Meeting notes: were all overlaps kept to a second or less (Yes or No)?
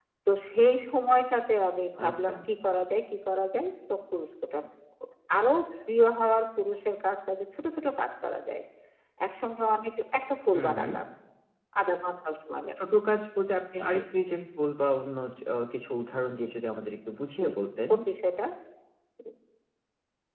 Yes